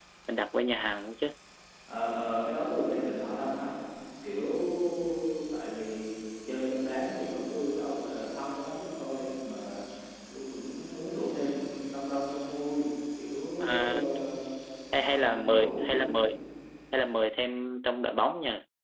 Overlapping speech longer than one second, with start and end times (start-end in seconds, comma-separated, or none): 14.9-16.3